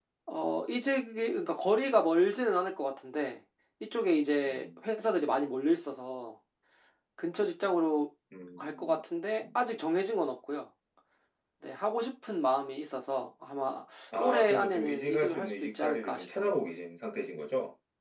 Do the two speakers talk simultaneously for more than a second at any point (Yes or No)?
Yes